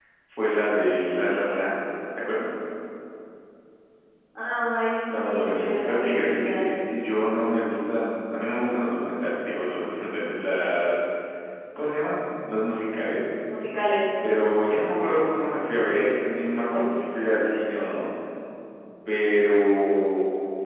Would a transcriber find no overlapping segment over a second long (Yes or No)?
No